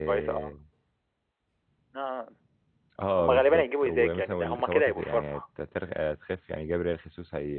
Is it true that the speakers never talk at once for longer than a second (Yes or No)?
No